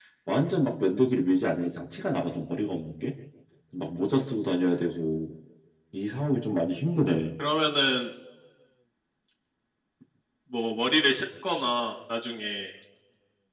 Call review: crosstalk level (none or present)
none